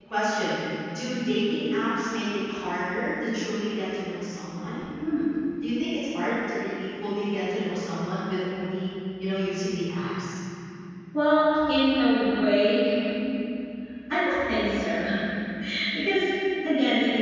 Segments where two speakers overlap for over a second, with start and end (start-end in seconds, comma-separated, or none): none